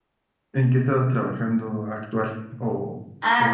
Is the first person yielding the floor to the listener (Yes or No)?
Yes